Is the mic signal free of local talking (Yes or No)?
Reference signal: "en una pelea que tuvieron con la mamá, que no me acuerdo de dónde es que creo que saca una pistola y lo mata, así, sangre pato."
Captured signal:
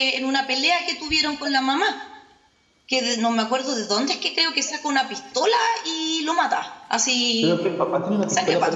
No